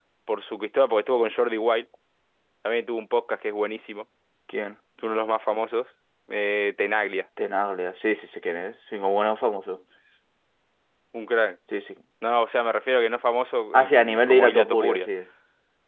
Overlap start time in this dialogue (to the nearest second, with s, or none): 14 s